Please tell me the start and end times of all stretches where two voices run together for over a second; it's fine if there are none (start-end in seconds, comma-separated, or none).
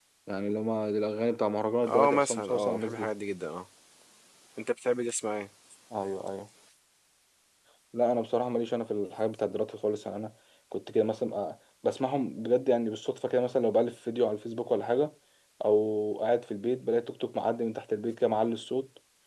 1.8-3.1